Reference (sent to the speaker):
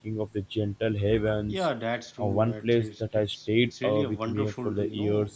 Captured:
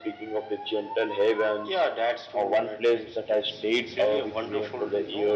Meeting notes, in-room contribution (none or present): none